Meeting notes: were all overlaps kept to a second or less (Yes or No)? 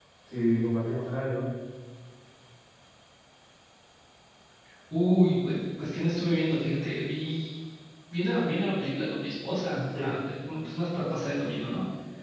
Yes